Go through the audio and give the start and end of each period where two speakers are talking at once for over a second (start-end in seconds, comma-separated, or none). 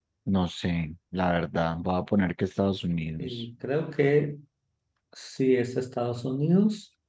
none